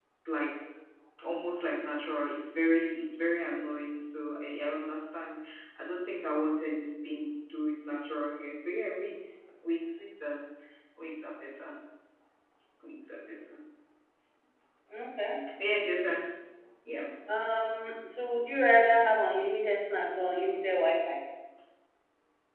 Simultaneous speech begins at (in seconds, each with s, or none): none